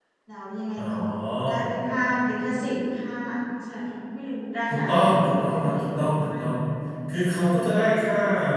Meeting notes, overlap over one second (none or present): present